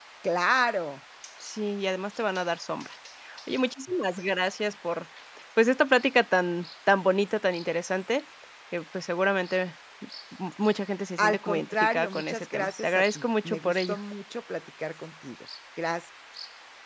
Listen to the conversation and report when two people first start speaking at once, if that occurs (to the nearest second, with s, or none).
11 s